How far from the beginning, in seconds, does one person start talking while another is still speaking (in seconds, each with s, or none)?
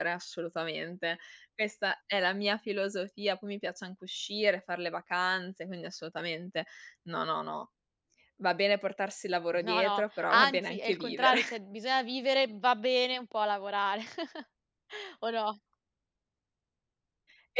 9.5 s